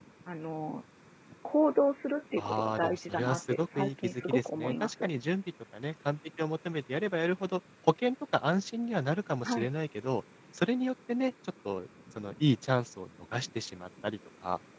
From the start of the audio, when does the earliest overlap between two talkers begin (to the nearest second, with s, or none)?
2 s